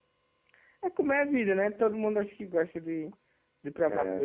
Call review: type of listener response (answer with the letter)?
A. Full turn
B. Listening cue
A